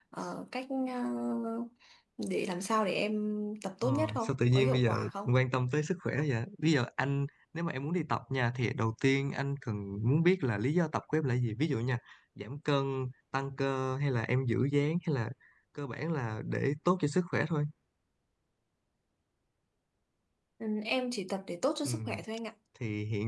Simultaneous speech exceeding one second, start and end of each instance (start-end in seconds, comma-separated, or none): 3.8-5.3